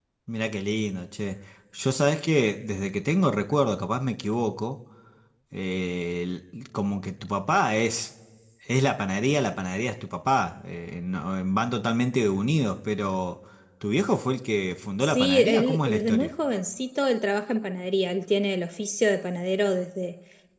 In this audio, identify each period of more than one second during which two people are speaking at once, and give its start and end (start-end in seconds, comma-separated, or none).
15.0-16.3